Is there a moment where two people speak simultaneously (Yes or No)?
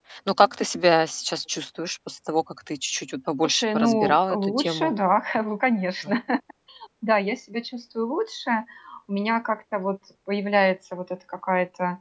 Yes